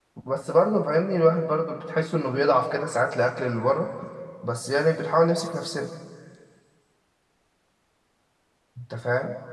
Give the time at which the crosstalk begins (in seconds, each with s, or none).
none